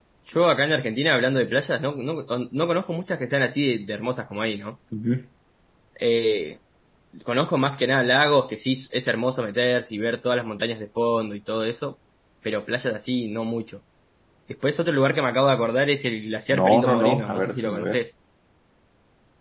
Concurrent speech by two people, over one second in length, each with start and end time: 16.5-18.0

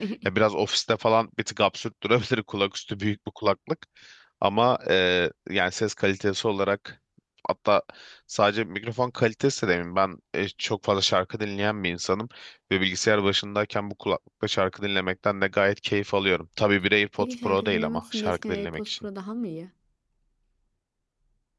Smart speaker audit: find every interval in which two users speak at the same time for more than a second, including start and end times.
17.2-19.0

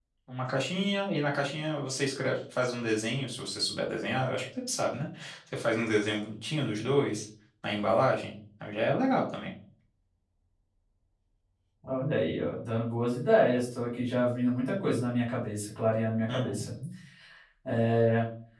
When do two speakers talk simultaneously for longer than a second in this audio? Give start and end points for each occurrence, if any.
none

